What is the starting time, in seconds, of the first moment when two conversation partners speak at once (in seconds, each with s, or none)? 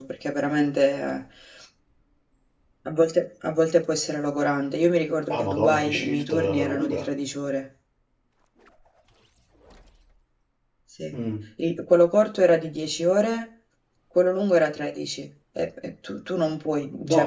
5.3 s